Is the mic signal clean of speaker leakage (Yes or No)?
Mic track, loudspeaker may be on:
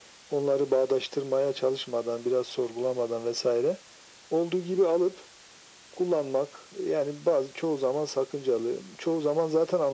No